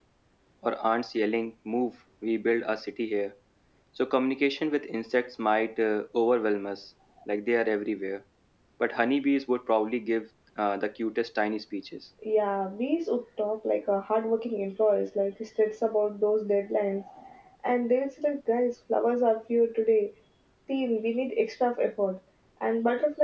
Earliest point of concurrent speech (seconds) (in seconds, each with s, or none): none